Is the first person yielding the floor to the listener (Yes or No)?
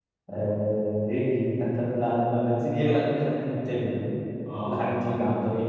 No